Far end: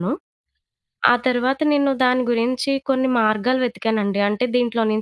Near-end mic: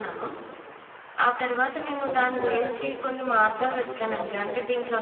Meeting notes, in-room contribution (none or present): present